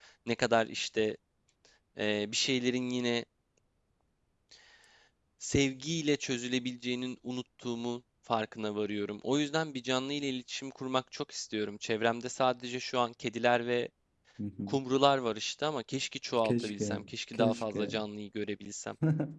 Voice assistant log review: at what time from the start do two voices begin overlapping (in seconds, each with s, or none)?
16.4 s